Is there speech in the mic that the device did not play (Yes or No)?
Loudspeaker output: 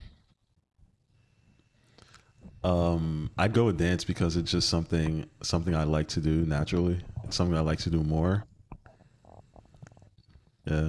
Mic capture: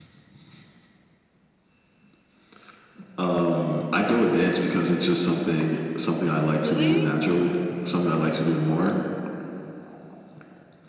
Yes